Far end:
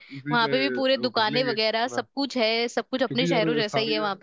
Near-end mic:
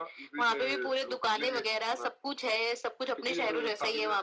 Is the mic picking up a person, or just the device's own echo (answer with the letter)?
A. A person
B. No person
B